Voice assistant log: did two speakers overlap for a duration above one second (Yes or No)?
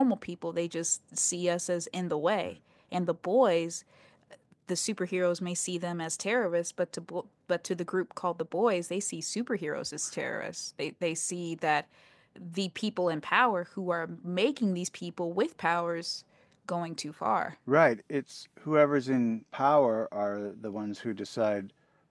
No